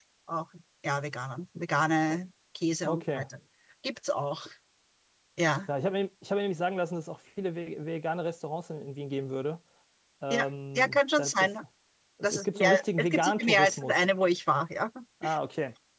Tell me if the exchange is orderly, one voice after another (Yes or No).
No